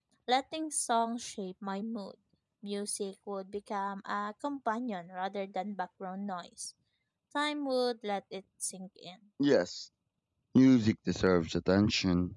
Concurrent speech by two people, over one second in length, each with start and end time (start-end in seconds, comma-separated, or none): none